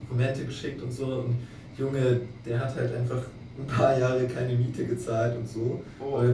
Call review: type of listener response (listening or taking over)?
listening